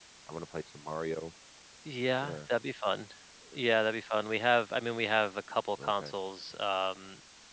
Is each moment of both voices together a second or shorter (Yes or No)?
Yes